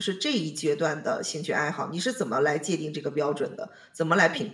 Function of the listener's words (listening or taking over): taking over